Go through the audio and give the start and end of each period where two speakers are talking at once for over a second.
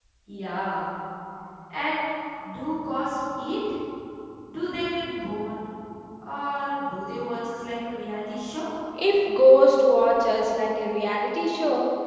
none

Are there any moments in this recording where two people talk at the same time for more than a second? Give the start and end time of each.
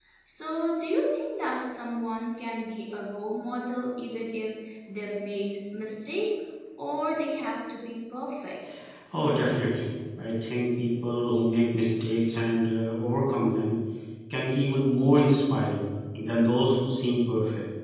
none

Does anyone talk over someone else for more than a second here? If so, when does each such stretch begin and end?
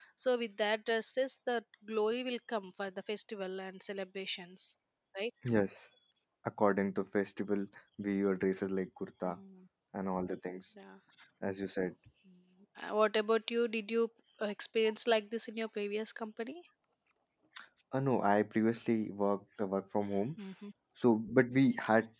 none

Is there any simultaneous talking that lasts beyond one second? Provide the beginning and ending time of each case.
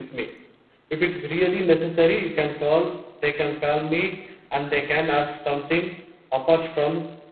none

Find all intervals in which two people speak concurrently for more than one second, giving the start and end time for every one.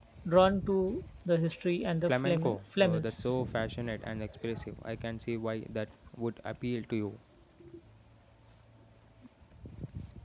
2.1-3.4

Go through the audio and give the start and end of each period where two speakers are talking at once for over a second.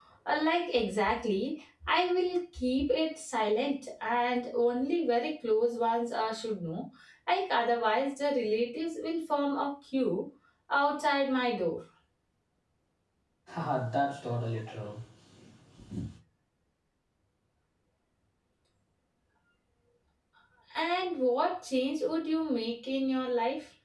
none

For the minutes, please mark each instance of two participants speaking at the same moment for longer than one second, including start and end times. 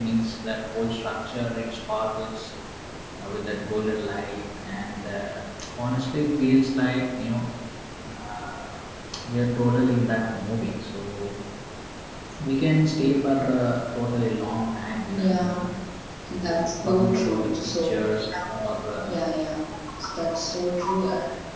16.6-18.0

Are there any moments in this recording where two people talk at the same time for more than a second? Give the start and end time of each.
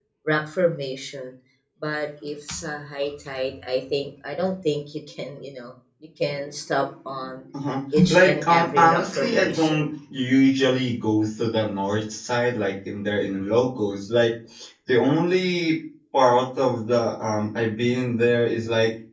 8.1-9.8

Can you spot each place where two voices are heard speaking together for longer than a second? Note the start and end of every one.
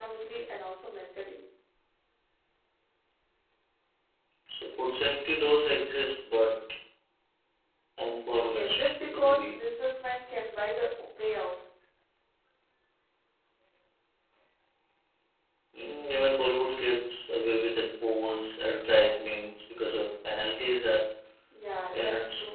8.4-9.6

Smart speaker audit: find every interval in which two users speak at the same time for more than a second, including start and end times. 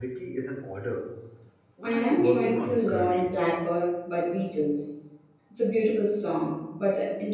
1.8-3.3

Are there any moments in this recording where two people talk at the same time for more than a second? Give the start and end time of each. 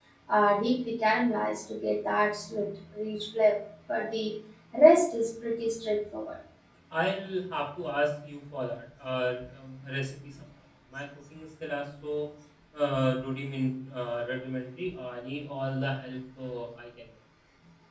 none

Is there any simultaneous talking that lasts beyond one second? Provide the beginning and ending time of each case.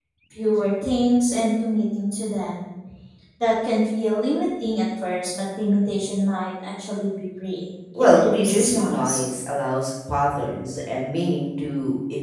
8.0-9.2

